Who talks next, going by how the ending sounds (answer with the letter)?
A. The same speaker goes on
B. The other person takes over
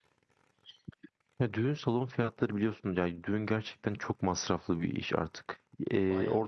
A